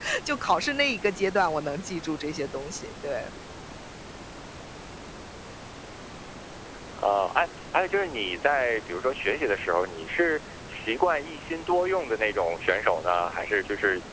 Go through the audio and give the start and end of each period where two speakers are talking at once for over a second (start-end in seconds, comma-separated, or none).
none